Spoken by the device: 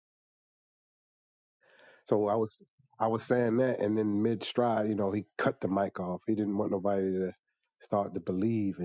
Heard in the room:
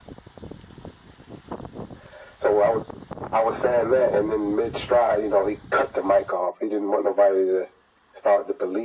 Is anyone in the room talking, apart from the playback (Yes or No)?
No